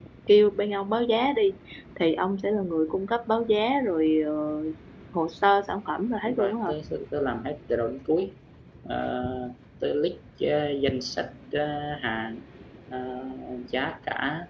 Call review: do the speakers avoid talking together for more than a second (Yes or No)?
Yes